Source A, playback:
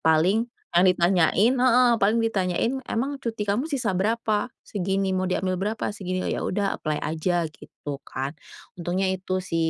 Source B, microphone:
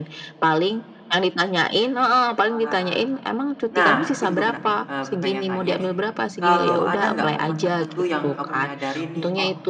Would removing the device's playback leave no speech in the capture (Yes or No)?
No